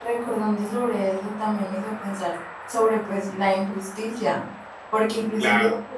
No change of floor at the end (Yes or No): Yes